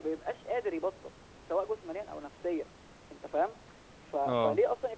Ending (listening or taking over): listening